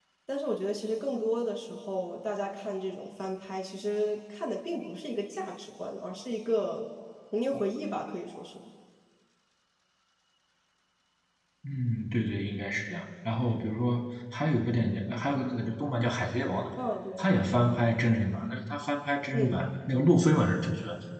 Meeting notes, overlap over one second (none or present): none